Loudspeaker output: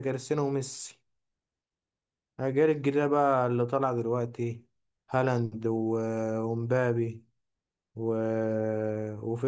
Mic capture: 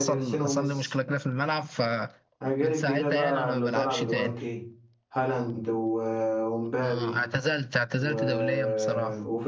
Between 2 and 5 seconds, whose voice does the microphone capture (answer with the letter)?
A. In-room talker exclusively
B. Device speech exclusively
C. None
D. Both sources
D